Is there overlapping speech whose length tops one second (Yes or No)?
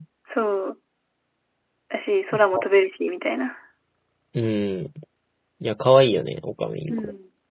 No